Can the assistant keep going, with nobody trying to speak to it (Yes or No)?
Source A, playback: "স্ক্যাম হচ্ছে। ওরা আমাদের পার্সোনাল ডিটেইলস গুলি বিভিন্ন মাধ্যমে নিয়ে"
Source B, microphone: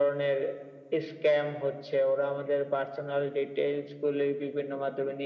Yes